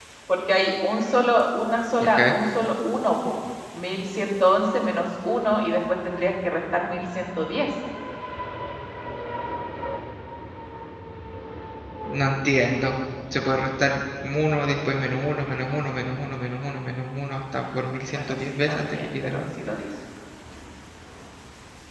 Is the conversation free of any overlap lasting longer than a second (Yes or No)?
No